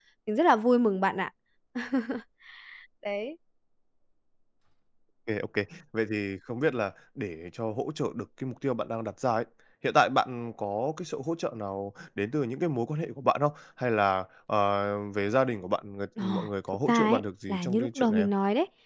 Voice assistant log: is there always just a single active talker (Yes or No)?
No